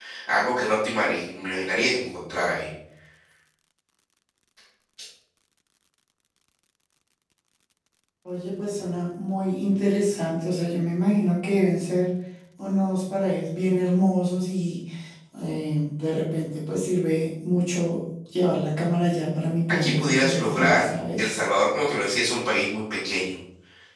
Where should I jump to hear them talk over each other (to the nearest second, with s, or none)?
20 s